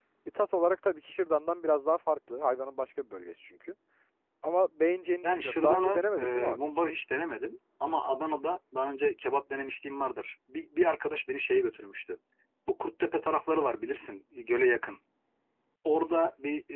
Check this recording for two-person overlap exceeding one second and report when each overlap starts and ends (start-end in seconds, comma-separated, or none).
5.2-6.8